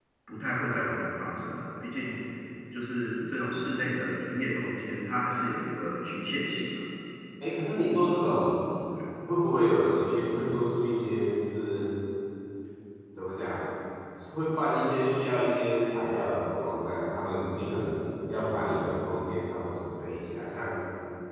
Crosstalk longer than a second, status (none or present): none